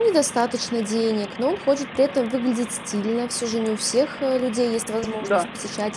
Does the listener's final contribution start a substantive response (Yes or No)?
No